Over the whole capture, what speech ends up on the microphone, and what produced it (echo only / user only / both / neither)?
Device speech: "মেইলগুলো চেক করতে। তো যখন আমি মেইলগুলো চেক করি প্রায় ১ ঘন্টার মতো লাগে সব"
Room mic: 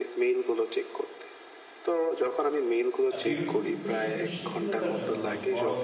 both